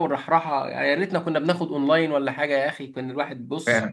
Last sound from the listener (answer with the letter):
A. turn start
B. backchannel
B